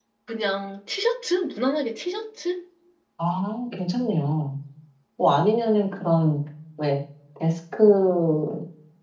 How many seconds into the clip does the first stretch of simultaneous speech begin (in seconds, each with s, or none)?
none